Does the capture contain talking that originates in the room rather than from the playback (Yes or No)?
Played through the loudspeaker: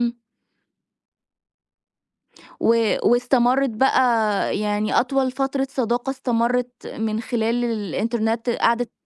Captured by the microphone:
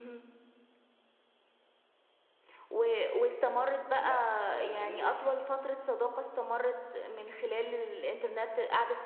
Yes